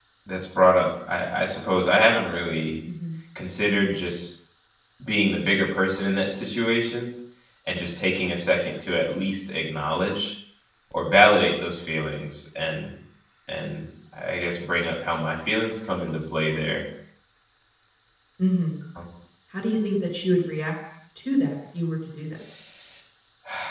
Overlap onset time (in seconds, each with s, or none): none